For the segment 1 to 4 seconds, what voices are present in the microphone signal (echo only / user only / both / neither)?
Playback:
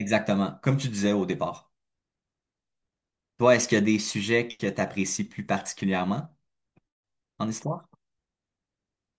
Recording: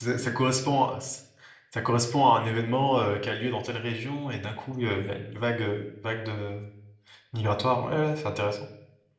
user only